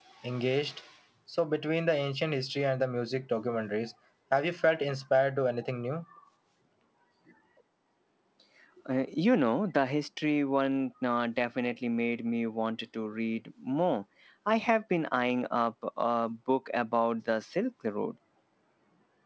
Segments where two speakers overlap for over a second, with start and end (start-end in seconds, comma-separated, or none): none